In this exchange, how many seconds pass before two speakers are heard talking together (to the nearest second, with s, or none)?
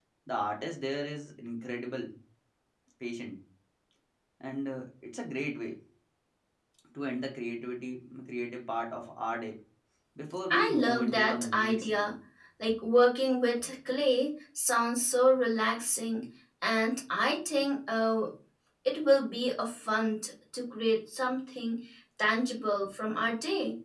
11 s